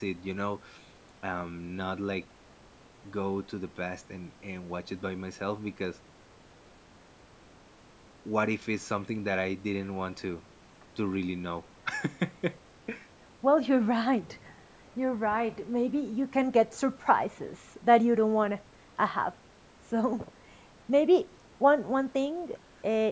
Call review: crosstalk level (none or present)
none